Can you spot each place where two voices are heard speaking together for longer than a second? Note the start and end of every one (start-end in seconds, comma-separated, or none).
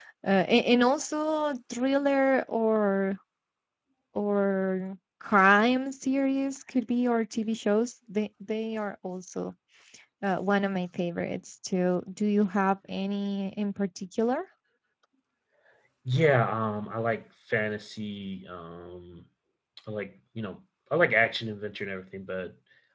none